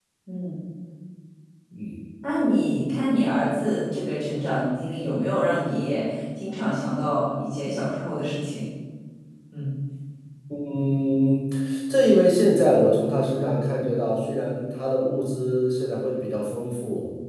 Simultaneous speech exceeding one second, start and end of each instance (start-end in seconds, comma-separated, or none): none